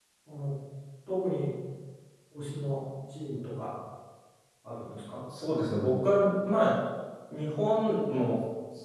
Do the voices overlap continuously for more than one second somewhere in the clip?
No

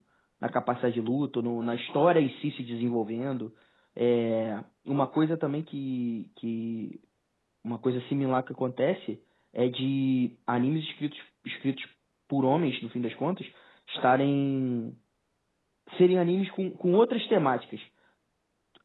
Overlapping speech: No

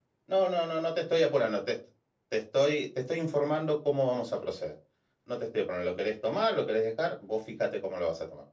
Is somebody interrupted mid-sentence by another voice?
No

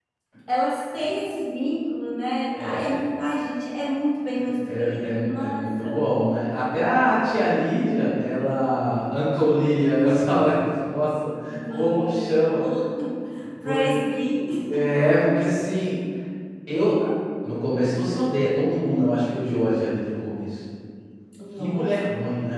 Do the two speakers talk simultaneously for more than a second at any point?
Yes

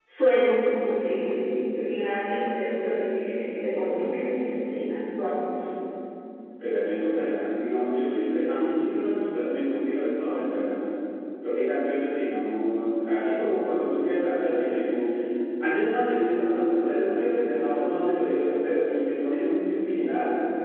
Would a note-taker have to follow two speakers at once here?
No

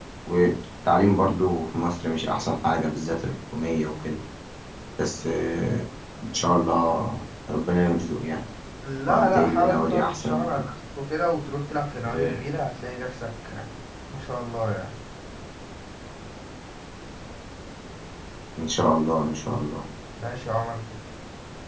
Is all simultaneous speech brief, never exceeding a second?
No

